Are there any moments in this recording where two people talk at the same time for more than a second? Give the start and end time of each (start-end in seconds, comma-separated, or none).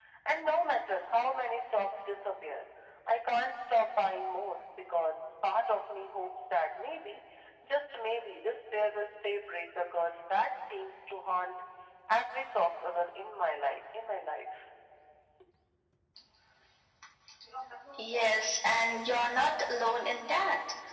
none